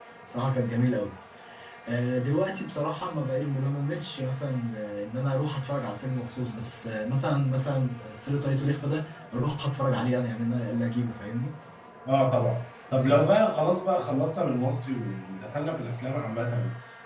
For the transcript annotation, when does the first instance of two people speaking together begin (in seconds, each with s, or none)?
none